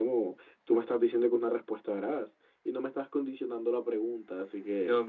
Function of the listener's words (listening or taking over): taking over